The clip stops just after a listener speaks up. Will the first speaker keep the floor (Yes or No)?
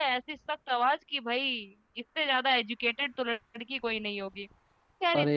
Yes